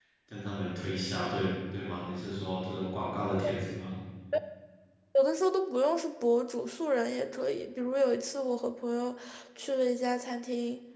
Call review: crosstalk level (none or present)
none